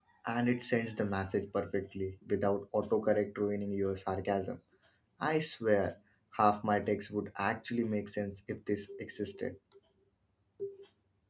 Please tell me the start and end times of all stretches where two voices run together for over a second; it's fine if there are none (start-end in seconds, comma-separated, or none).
none